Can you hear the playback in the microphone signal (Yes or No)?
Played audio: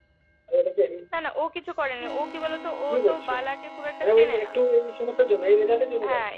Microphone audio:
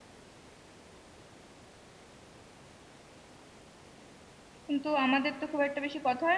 No